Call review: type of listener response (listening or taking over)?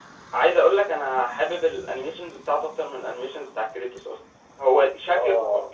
listening